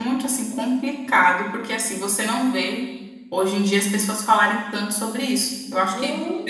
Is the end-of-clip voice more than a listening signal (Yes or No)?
No